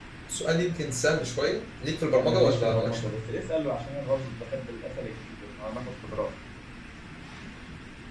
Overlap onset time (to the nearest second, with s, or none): 2 s